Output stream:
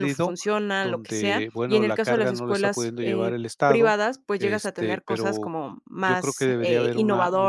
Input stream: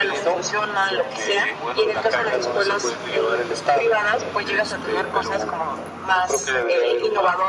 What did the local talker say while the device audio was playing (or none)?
none